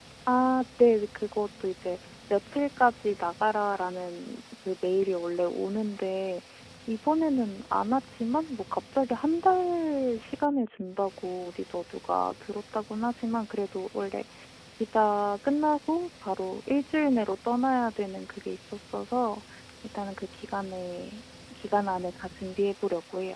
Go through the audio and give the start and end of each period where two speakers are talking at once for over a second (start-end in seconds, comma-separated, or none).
none